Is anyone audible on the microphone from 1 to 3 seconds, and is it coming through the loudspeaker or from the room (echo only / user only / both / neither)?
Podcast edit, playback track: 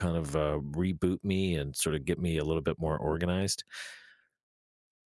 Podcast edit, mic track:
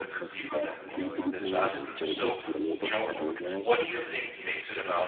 both